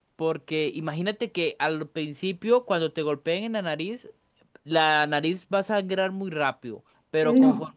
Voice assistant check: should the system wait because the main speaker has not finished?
Yes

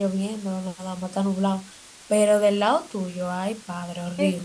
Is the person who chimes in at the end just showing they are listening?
No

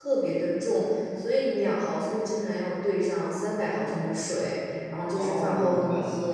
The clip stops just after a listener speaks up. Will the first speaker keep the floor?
No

